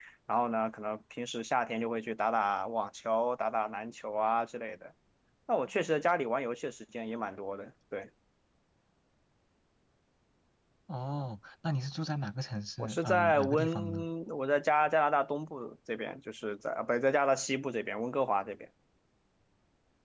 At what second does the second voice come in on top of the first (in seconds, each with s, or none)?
12.8 s